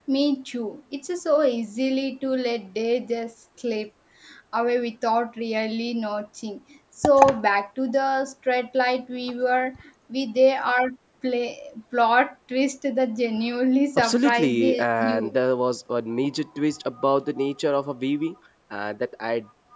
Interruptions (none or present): present